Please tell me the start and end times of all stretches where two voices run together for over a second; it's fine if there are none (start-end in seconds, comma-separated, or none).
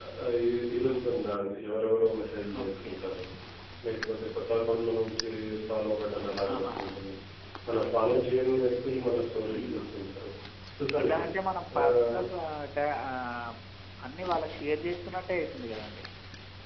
none